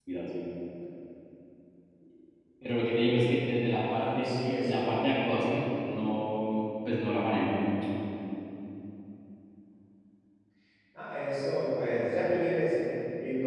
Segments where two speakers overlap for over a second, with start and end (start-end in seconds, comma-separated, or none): 3.9-5.2